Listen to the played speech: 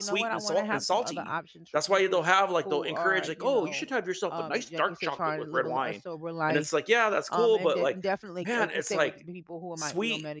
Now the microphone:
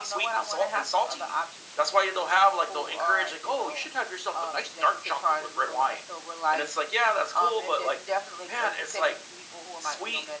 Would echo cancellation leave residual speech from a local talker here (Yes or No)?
No